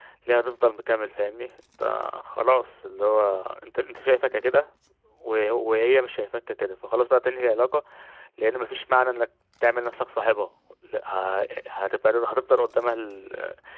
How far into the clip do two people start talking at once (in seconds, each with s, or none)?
none